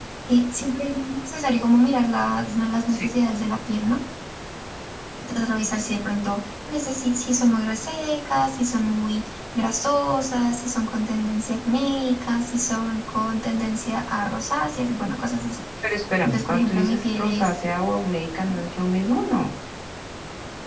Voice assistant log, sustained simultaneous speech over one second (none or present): present